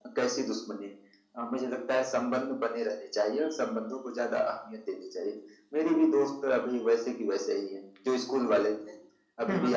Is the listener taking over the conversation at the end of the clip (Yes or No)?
No